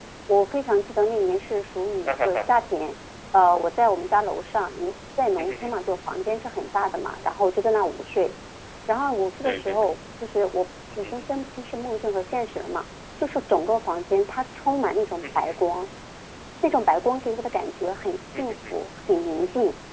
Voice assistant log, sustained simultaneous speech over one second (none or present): none